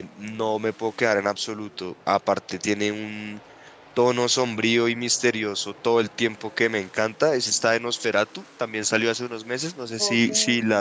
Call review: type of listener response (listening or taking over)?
taking over